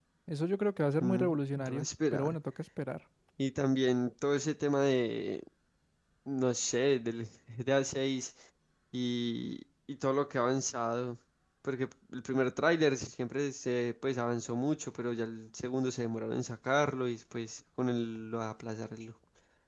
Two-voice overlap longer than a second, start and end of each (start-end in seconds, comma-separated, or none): 1.0-2.4